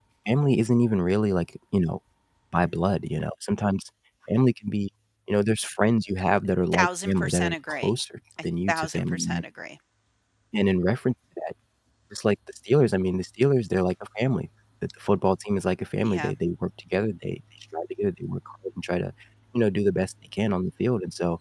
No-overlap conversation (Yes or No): No